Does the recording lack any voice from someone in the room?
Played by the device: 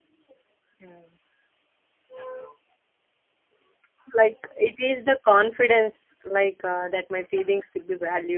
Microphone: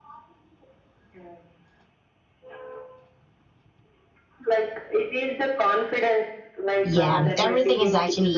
No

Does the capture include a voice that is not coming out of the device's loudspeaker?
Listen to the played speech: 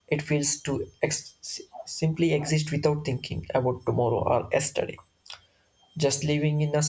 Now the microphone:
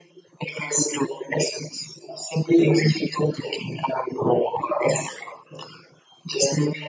No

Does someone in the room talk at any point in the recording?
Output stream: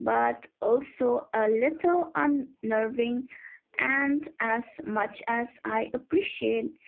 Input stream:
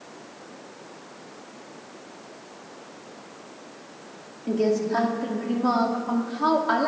Yes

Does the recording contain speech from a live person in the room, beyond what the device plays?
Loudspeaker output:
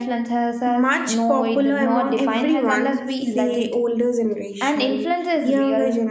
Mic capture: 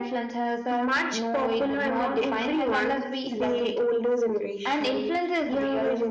No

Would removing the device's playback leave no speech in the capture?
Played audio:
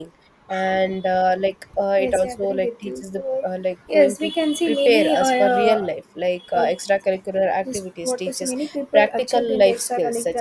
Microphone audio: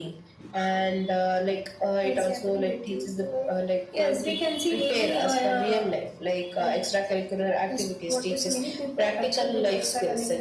Yes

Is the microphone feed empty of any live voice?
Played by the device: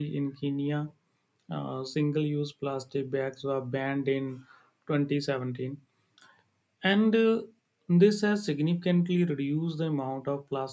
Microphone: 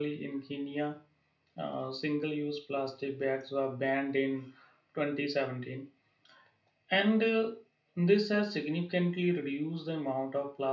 Yes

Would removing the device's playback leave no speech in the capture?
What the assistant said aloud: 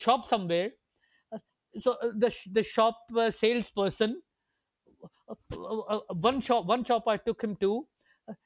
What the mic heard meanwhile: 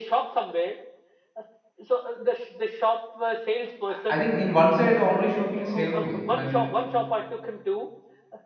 No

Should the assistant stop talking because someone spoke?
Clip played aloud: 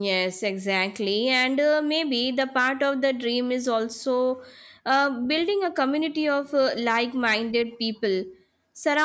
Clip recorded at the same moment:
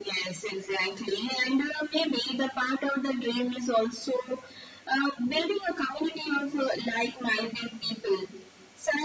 No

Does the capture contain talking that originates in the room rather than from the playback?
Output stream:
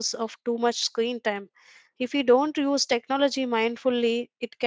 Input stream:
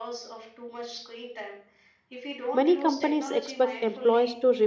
Yes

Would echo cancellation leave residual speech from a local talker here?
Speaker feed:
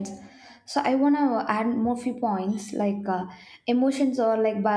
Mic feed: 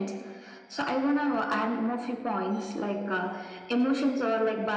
No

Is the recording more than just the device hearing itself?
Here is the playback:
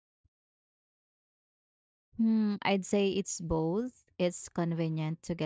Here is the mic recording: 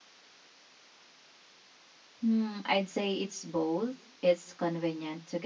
No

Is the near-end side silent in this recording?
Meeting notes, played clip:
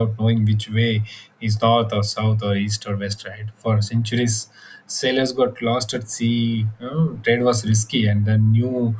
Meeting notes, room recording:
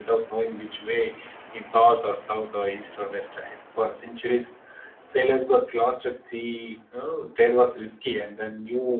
Yes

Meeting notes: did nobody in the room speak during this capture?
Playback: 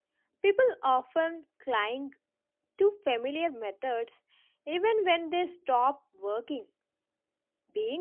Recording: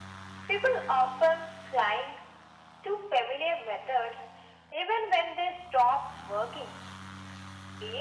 Yes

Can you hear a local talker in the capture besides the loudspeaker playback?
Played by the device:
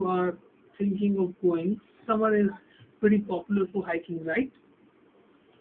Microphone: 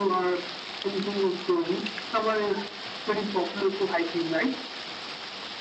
No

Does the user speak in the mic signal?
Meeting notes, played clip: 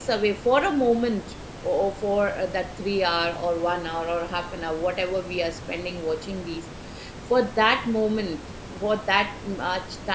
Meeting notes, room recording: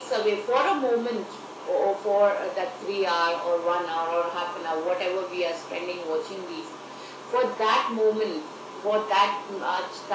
No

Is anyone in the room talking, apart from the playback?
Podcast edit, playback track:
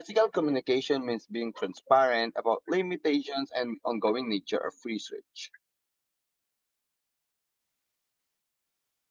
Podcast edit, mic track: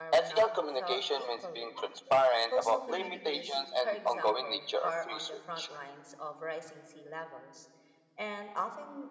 Yes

